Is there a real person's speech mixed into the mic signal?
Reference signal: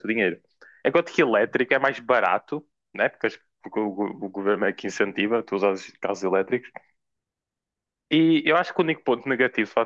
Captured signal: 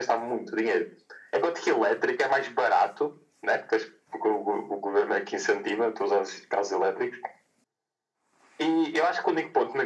No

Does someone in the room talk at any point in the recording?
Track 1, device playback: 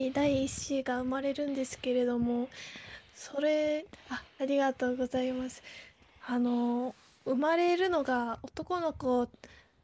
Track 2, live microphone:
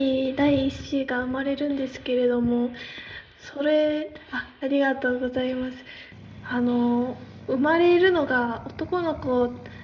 No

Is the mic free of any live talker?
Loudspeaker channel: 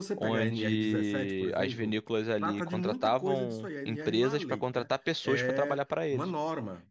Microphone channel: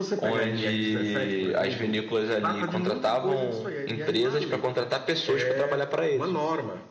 Yes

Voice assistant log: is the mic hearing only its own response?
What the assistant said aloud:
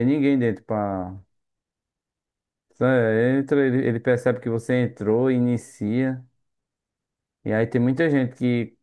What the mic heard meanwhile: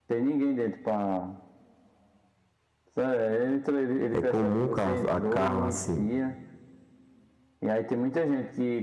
No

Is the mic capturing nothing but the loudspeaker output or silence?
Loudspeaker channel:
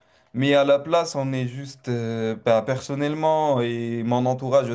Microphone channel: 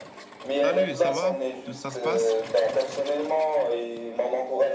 No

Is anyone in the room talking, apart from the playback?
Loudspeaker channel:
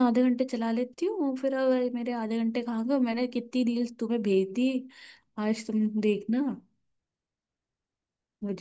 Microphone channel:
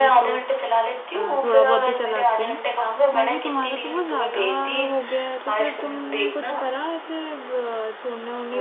Yes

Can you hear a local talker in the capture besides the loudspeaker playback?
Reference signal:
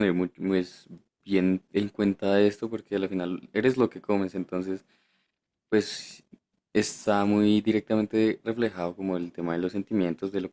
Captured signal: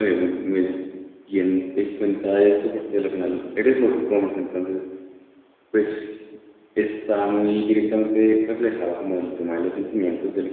No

